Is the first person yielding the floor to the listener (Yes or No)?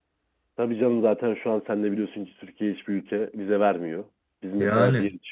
No